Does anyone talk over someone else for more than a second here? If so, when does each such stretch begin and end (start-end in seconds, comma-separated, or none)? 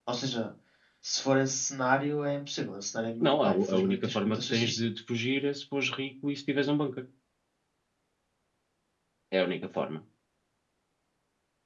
3.2-4.8